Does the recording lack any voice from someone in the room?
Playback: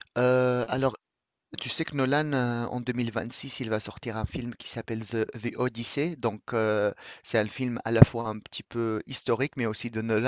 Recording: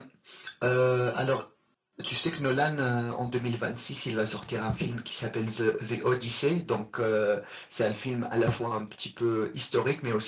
Yes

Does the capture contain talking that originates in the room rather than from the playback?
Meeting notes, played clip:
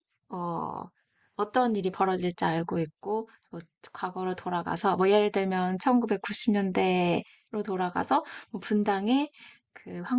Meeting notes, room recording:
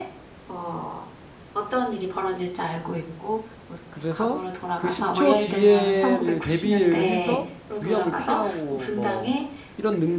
Yes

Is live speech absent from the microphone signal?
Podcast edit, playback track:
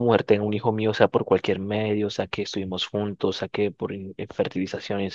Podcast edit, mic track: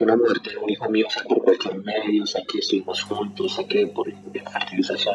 Yes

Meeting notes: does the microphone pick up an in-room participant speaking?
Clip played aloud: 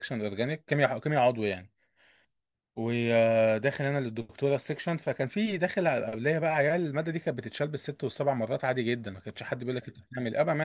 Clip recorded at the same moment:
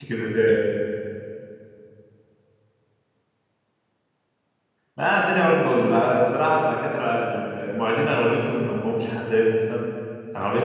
Yes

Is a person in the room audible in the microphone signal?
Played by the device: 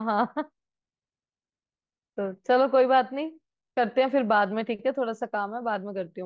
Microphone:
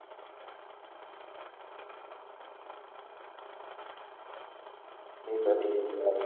Yes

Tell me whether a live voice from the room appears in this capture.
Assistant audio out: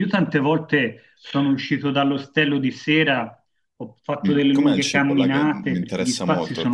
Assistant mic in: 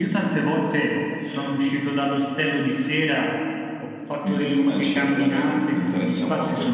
No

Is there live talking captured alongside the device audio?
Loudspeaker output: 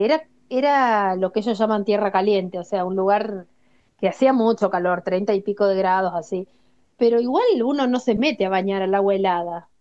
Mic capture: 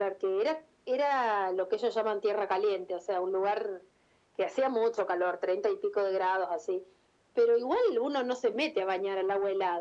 No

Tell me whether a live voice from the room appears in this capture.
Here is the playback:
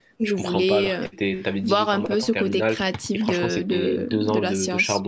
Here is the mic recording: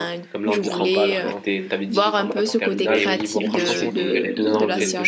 Yes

